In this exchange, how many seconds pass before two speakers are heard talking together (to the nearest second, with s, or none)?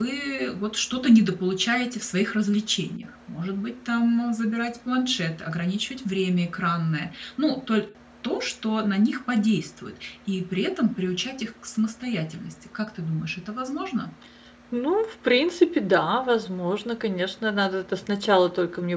none